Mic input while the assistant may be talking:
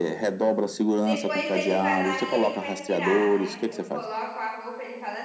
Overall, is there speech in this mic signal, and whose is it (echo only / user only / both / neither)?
both